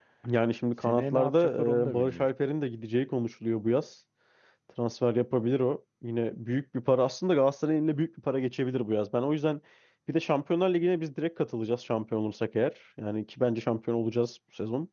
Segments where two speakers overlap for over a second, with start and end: 0.8-2.3

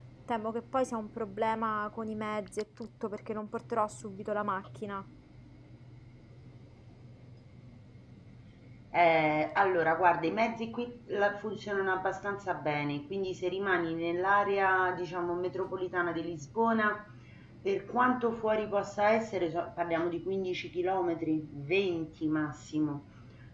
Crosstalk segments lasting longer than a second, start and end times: none

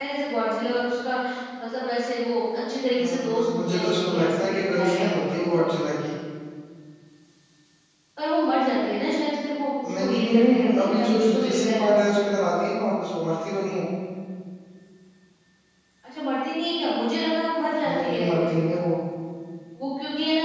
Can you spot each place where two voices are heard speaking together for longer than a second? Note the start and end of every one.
3.0-5.6, 10.0-11.8

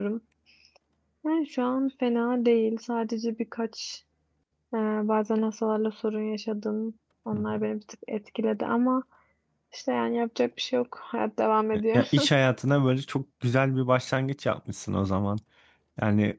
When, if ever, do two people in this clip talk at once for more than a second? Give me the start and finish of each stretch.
none

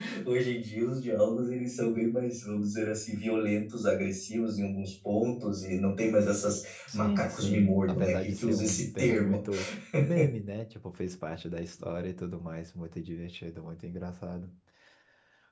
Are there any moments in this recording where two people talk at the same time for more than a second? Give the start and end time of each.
6.9-9.5

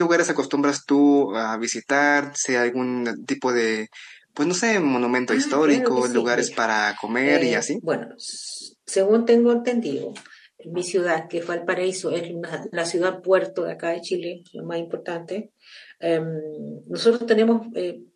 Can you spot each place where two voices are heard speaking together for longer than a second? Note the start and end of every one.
5.3-6.6

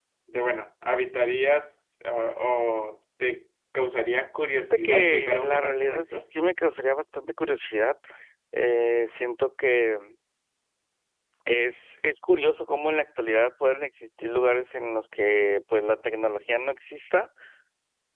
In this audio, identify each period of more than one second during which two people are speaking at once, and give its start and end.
4.7-6.2

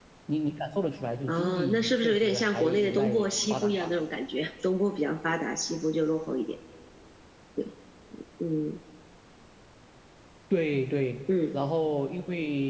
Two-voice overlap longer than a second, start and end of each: 1.3-3.9

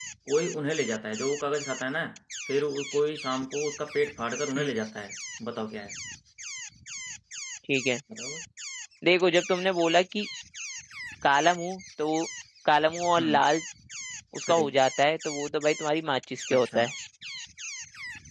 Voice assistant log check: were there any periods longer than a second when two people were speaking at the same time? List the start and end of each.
none

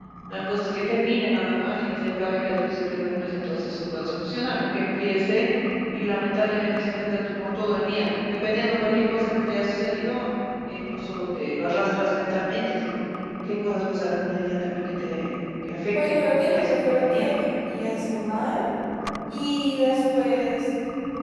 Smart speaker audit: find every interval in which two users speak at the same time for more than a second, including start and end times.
16.0-17.4

